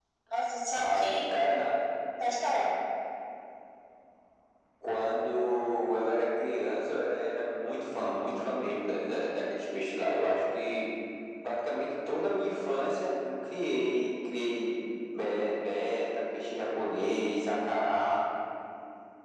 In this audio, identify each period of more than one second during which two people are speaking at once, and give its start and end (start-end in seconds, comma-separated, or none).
none